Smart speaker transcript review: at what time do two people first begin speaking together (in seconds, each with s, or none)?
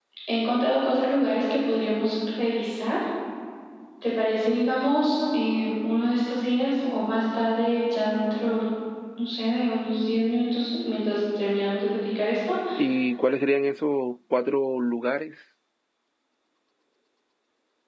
none